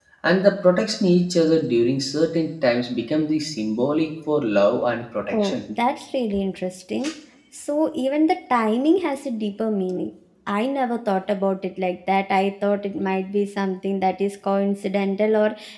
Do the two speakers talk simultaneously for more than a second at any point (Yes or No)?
No